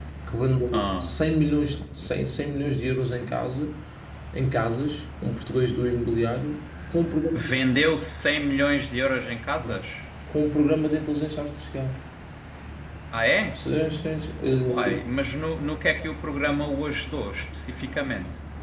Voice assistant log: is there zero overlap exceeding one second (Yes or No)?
Yes